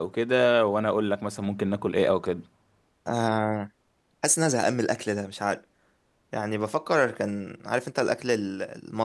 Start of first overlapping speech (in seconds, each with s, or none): none